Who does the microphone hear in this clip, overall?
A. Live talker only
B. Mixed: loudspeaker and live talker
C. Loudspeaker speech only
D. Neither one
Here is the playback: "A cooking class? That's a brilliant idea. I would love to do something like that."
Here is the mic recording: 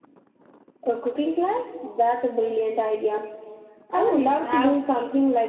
B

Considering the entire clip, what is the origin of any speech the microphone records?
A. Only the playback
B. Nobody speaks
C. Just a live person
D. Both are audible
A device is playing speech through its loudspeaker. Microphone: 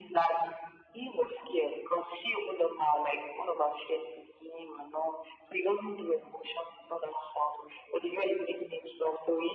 A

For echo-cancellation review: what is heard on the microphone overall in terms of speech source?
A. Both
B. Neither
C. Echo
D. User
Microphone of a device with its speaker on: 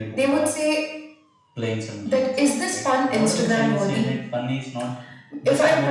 C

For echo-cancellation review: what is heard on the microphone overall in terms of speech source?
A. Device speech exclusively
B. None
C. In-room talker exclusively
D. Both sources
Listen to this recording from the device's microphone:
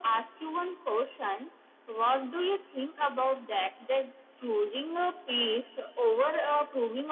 A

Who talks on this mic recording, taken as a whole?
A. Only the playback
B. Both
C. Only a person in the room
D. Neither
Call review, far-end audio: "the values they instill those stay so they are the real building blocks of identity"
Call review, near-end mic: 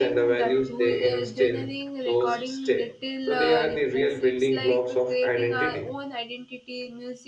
B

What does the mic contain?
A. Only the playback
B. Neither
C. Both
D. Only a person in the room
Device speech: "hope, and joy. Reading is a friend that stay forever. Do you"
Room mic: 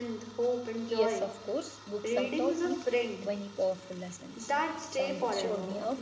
C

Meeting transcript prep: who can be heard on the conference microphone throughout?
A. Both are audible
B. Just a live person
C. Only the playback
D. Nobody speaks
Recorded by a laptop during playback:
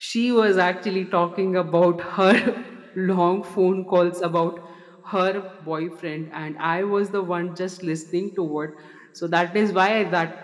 B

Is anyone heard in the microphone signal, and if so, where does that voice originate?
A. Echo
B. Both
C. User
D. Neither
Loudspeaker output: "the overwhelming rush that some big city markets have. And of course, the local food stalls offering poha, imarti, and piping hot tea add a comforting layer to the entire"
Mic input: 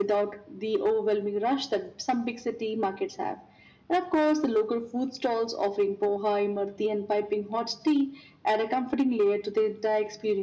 A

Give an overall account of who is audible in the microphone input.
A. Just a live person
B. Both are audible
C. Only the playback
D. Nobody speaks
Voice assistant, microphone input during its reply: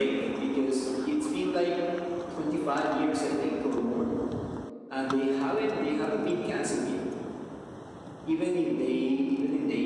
C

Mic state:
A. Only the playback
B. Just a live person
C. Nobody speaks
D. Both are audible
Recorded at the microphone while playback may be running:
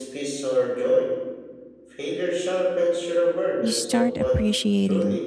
D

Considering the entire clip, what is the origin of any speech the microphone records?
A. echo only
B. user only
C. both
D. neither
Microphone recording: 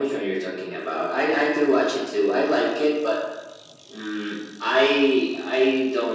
A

